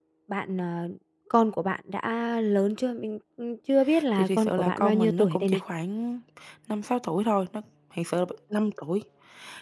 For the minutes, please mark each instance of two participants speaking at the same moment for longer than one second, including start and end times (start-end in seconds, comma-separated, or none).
4.2-5.6